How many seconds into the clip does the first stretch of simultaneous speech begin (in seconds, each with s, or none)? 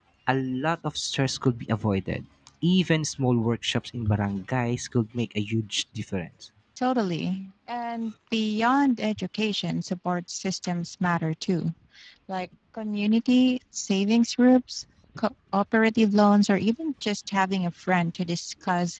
none